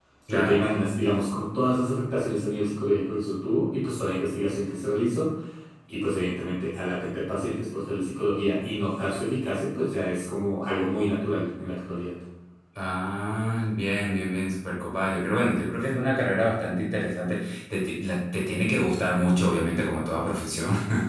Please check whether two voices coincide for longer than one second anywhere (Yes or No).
No